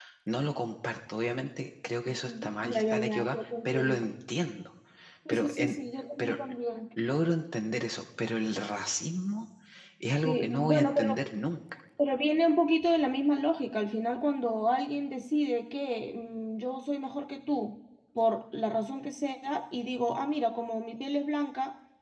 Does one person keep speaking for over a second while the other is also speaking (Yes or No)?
Yes